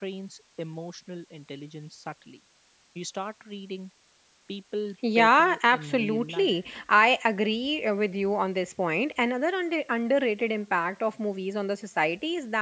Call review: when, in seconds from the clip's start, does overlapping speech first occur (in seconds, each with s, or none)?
5.2 s